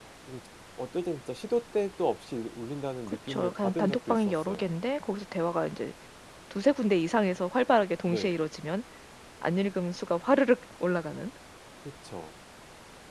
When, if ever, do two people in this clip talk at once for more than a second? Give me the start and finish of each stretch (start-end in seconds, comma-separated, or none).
3.1-4.7